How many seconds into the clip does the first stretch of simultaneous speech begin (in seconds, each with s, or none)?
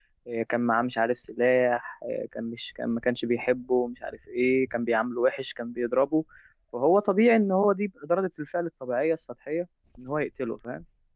none